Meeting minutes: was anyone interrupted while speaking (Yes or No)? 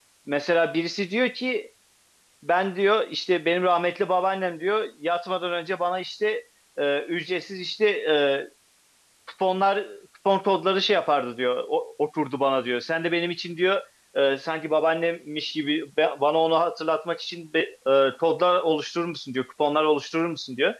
No